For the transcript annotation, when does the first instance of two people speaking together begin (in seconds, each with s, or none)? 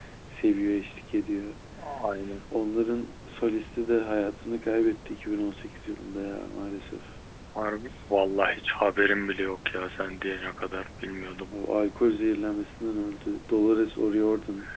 none